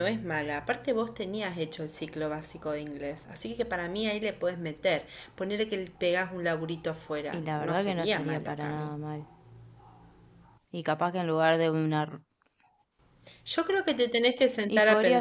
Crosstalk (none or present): present